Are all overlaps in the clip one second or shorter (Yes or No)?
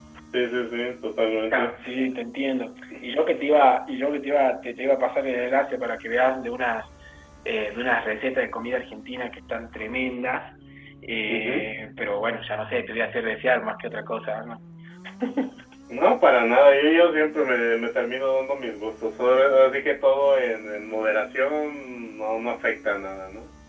Yes